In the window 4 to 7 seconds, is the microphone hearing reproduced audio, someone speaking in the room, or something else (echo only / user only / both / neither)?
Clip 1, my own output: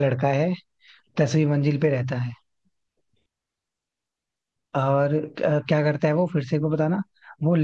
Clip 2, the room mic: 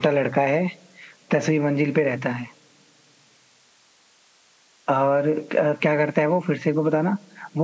echo only